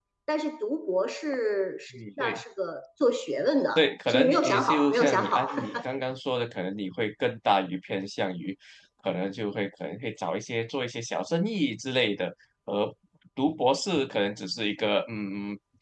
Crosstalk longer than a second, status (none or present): present